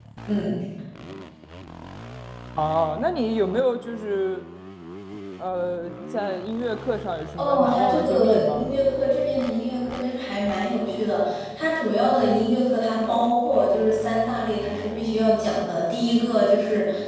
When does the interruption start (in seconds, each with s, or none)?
7.4 s